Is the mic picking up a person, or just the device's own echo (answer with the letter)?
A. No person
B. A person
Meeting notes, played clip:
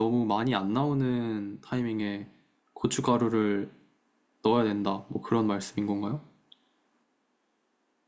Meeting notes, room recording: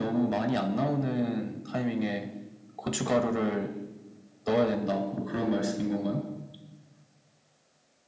A